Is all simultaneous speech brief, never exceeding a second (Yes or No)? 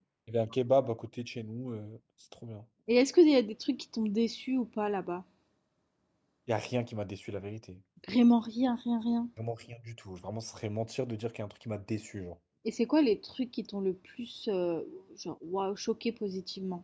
Yes